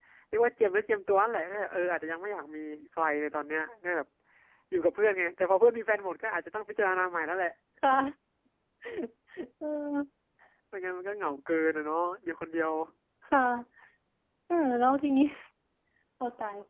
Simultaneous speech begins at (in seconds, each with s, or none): none